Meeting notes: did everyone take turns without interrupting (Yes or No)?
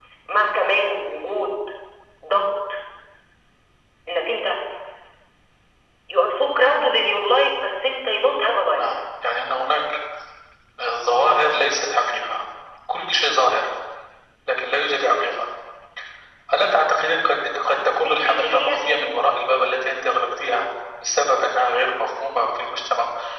No